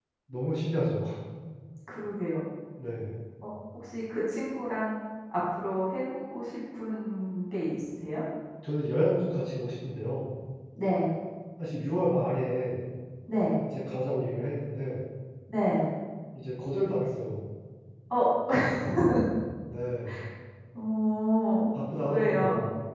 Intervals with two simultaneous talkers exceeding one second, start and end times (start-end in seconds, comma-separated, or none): none